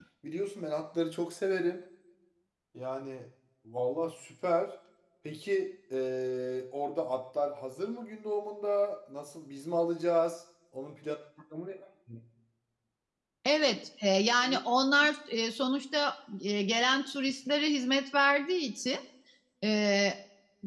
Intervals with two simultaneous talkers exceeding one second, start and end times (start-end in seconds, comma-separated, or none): none